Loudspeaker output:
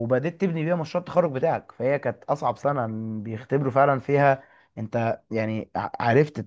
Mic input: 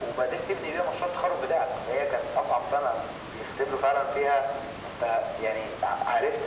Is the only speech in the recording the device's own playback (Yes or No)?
Yes